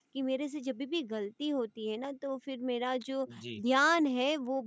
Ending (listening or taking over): listening